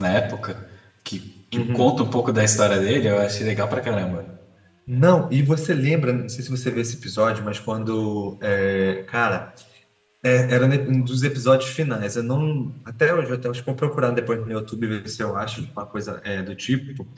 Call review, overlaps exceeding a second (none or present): none